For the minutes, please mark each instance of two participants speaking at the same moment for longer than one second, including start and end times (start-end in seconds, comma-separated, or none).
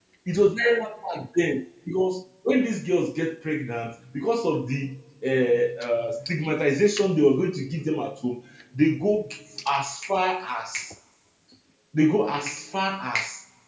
none